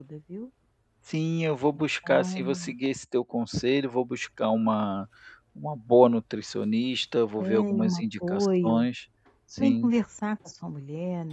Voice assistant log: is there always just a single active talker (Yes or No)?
No